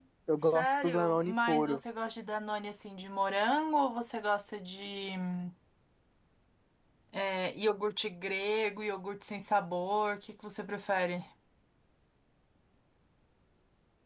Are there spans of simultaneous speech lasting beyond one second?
Yes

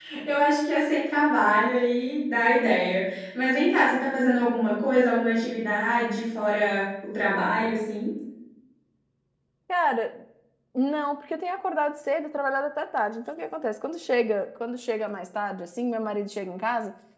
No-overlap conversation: Yes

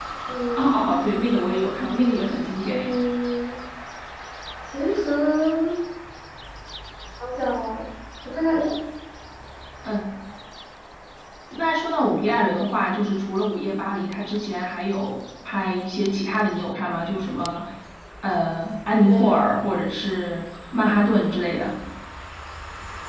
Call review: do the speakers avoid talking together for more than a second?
Yes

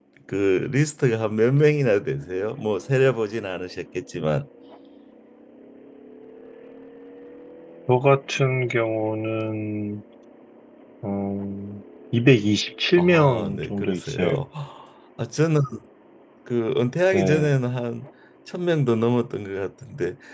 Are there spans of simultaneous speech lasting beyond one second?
Yes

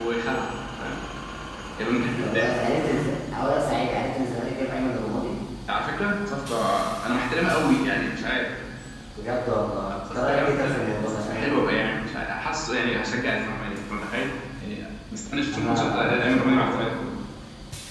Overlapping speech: Yes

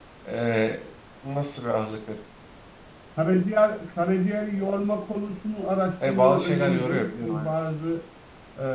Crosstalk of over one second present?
Yes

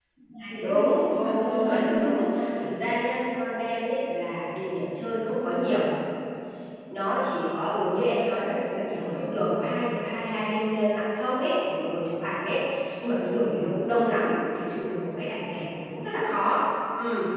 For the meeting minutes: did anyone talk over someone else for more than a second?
Yes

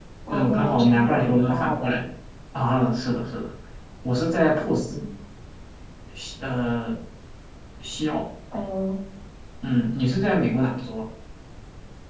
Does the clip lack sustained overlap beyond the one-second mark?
No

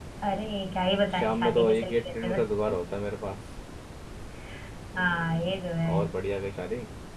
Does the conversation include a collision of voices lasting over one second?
Yes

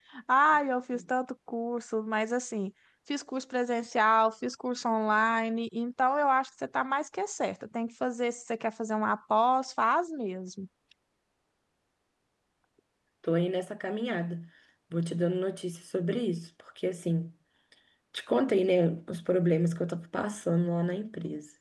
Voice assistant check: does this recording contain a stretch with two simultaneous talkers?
No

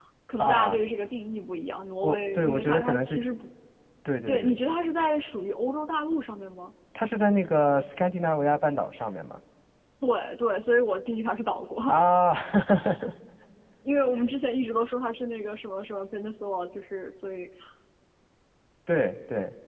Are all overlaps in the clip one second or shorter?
No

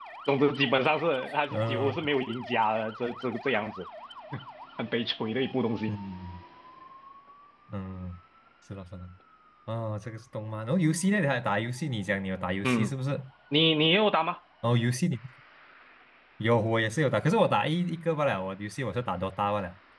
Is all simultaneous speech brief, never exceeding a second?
Yes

